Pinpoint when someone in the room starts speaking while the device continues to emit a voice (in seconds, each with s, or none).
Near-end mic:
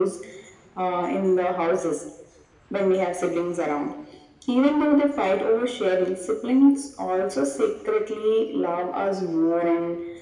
none